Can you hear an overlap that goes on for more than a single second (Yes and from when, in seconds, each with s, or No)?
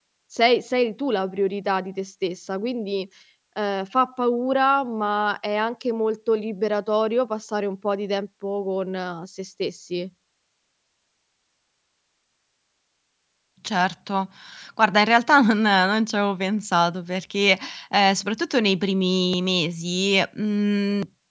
No